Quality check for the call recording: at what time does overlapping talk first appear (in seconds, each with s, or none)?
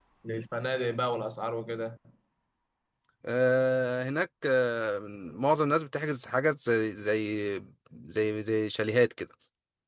none